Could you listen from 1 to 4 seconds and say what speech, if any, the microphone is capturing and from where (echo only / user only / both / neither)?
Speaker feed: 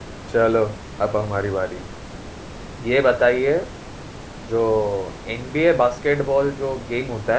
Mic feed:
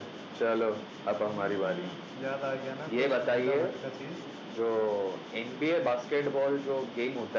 both